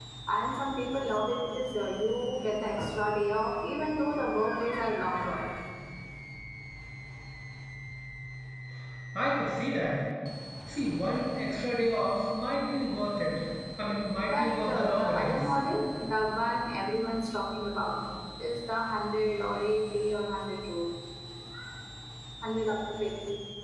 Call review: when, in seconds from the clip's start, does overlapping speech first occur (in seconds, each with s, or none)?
14.2 s